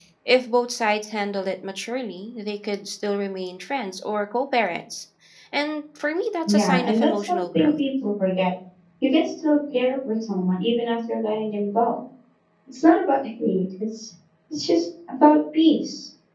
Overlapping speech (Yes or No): Yes